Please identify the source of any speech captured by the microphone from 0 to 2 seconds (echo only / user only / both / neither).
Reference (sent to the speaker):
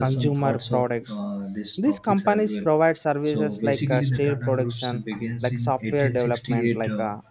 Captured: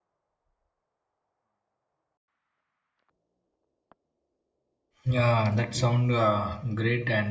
neither